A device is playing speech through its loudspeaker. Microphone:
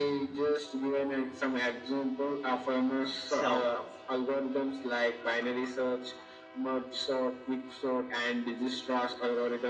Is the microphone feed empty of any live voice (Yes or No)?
No